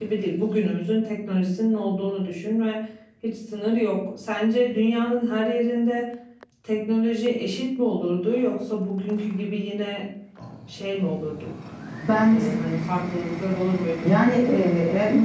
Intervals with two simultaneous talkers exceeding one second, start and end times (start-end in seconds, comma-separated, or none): none